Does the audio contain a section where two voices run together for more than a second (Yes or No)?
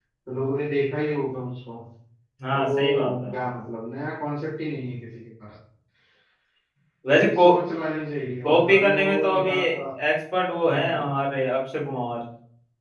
Yes